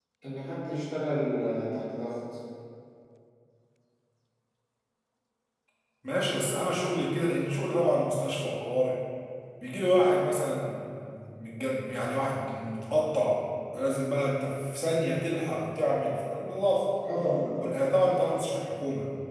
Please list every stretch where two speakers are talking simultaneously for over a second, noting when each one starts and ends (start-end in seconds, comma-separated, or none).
none